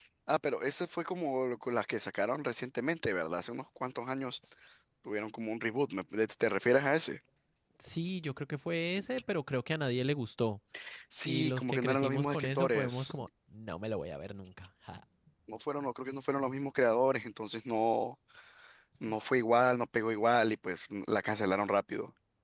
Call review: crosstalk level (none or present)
present